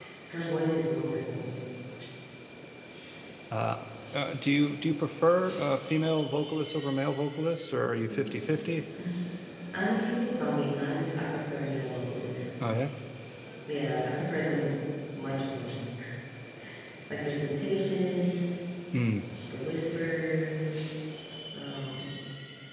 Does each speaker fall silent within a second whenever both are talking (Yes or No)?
Yes